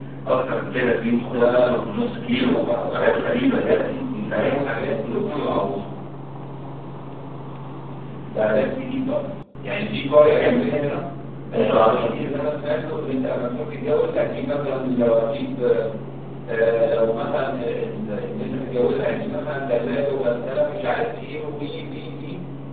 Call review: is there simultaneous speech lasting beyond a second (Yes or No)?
Yes